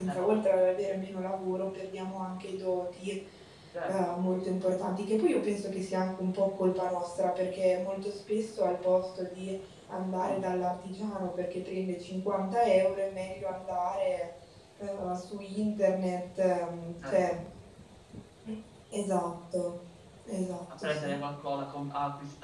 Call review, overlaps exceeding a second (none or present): none